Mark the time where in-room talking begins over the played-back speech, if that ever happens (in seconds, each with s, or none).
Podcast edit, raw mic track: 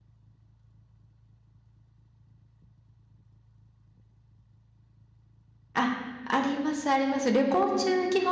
5.7 s